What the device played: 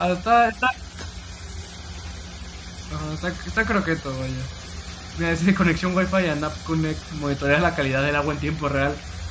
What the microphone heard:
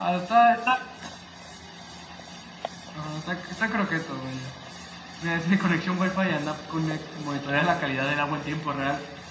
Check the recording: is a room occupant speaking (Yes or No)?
No